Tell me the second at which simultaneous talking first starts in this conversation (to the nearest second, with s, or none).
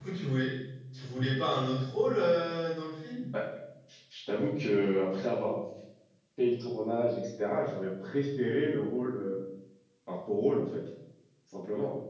none